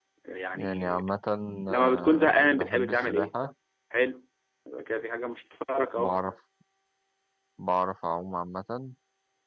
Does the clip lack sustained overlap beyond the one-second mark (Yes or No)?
No